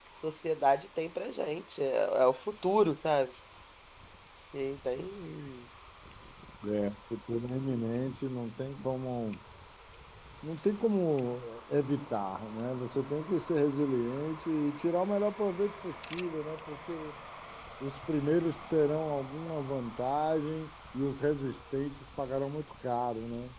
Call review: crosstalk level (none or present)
none